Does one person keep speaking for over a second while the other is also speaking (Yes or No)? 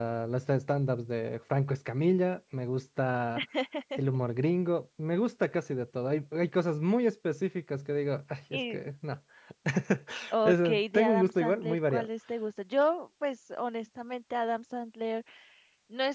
Yes